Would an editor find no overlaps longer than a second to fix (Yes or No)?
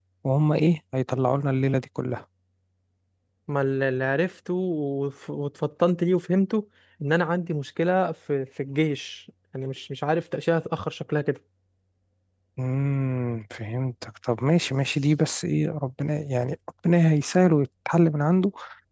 Yes